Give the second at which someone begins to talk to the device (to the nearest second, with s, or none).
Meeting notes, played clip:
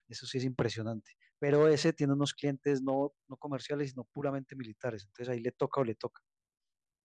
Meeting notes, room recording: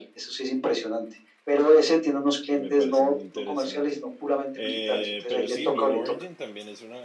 3 s